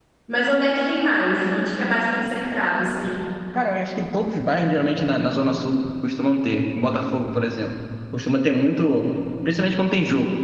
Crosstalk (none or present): none